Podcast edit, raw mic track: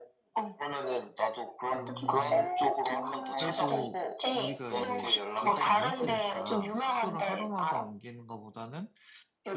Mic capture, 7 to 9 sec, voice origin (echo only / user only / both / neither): both